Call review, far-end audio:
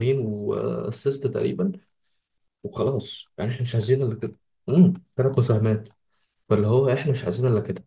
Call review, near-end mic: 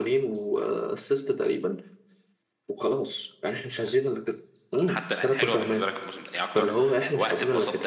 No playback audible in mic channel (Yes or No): No